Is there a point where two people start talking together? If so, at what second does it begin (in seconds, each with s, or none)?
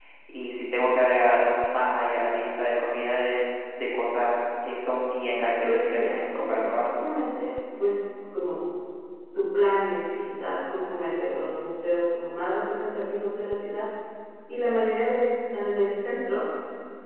5.7 s